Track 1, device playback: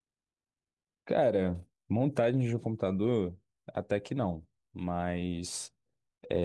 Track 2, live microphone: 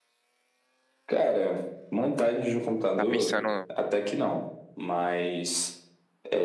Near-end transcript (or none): Tá pensando.